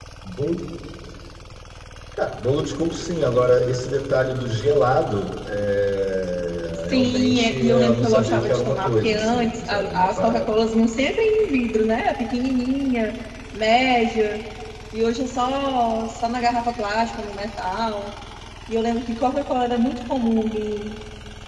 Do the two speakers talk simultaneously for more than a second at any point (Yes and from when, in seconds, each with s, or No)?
Yes, from 6.9 s